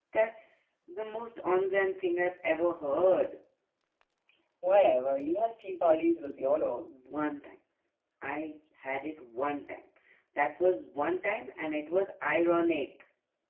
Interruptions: none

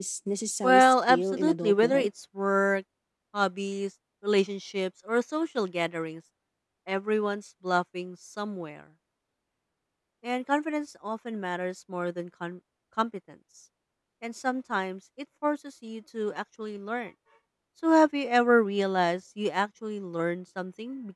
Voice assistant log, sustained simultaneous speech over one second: present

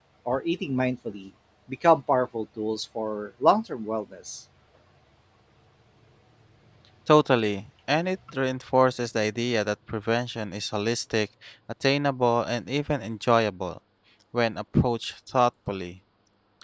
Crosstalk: none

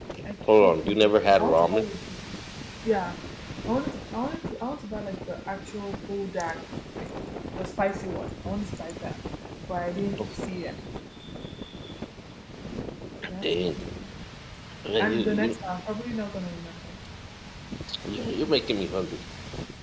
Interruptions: present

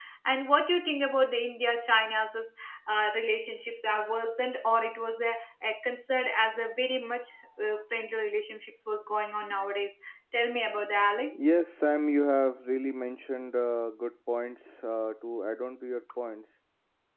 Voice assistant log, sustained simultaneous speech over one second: none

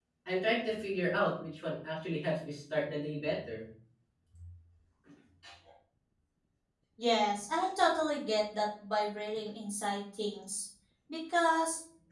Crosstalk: none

